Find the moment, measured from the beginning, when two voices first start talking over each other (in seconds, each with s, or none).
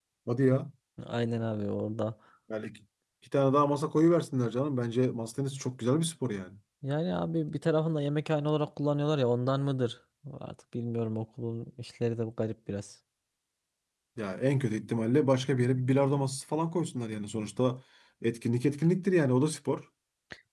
none